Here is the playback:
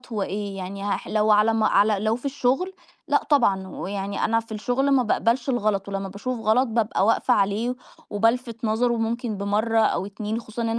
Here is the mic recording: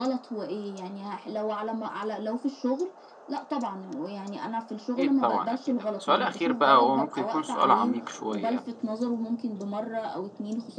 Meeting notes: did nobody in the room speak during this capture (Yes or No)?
No